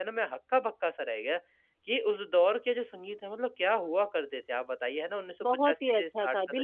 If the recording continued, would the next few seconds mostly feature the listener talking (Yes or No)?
Yes